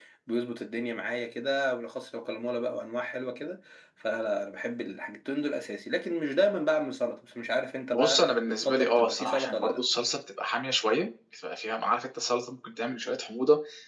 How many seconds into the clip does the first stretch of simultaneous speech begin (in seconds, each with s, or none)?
8.0 s